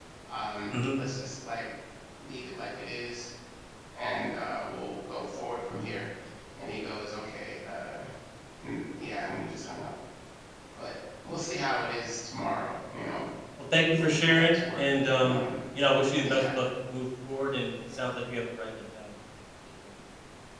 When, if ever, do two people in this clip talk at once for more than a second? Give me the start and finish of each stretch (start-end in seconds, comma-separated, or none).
14.0-15.5